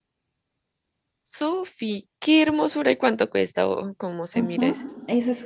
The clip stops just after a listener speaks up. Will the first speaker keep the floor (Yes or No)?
No